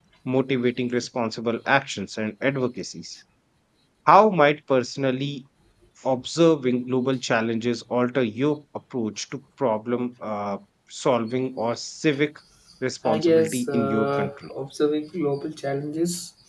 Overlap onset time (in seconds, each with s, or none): 13.1 s